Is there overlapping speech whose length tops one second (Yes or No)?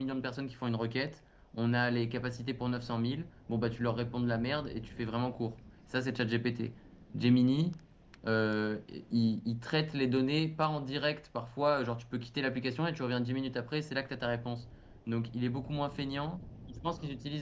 No